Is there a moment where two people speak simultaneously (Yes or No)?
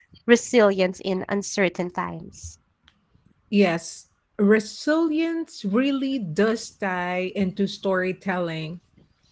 No